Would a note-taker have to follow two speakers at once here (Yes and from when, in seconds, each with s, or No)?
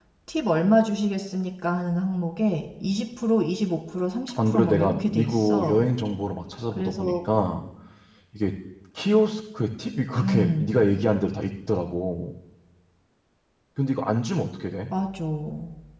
Yes, from 4.5 s